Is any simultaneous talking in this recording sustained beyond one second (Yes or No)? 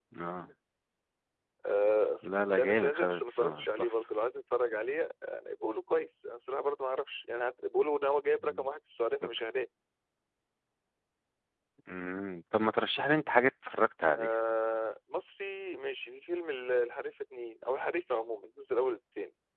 Yes